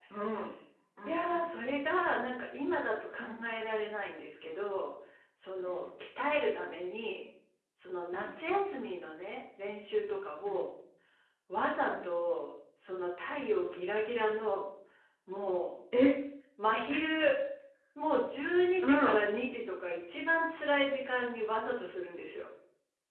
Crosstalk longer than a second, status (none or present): none